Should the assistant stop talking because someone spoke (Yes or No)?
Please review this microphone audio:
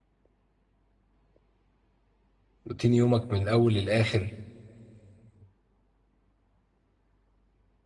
Yes